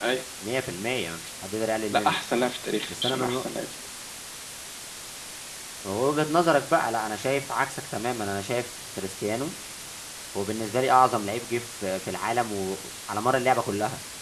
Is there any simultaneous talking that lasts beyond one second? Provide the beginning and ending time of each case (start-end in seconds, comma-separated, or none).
none